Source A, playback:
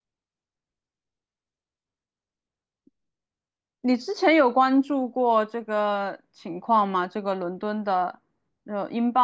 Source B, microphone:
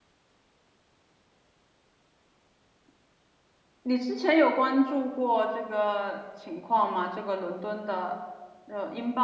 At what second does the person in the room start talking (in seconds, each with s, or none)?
none